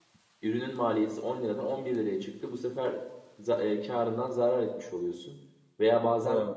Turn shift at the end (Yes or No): No